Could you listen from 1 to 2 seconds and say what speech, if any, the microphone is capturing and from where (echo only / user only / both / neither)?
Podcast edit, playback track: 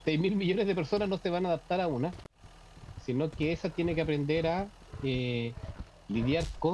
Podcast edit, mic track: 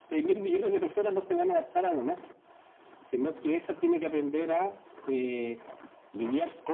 echo only